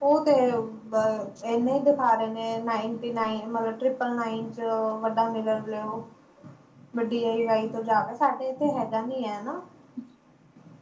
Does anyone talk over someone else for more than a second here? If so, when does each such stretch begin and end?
none

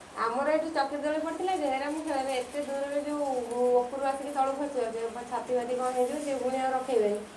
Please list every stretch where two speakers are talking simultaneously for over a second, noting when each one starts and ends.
none

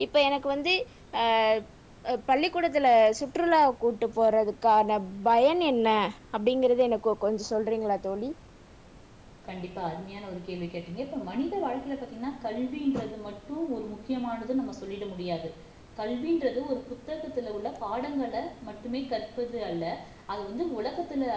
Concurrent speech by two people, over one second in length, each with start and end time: none

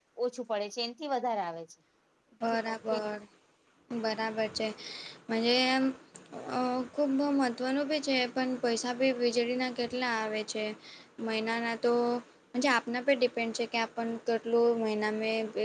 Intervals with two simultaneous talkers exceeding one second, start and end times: none

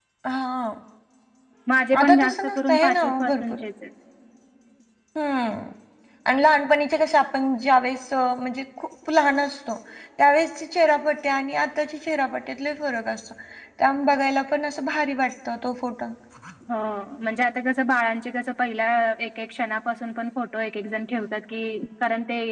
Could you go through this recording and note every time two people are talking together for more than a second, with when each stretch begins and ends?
2.0-3.6

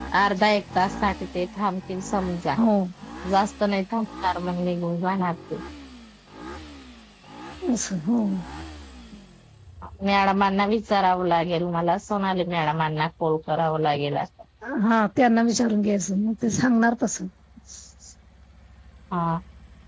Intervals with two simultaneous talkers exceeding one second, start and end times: none

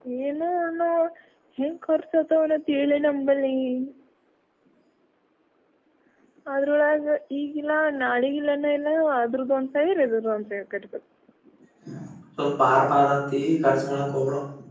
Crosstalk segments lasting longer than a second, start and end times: none

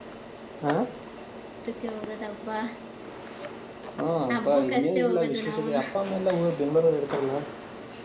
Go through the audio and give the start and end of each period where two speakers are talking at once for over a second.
4.4-5.8

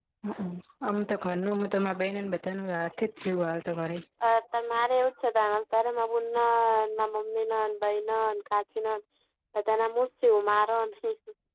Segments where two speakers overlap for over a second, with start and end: none

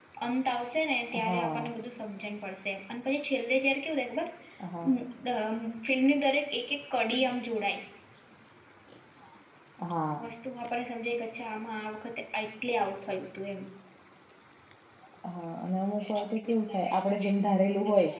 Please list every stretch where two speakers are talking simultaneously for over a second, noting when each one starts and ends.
none

